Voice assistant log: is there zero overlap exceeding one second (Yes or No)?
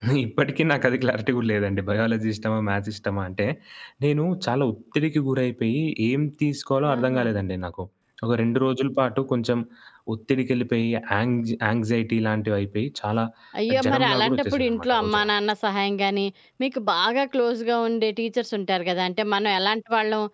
No